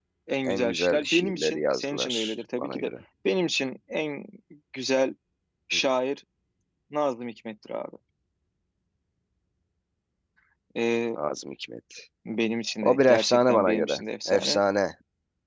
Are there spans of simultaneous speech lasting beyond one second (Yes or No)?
Yes